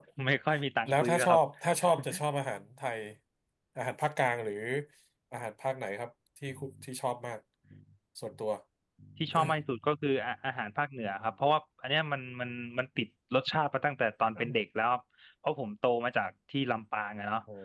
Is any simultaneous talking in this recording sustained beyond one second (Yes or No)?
No